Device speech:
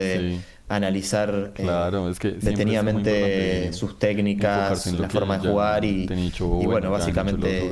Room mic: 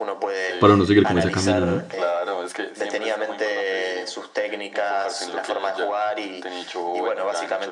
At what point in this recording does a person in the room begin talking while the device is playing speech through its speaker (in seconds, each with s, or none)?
0.6 s